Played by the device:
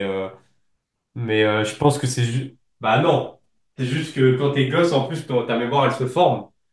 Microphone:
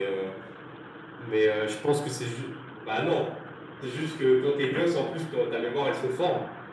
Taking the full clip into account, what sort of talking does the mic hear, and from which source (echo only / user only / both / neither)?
echo only